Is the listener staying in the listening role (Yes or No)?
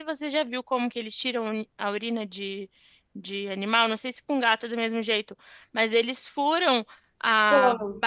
Yes